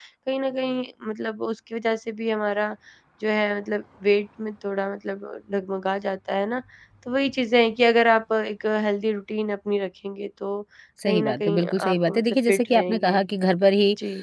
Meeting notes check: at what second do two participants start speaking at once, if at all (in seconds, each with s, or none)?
11.1 s